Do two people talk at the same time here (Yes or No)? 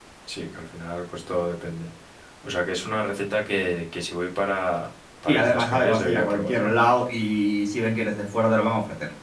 Yes